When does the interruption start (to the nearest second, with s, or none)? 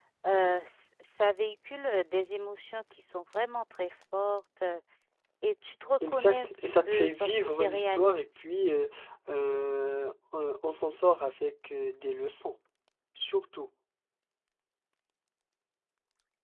6 s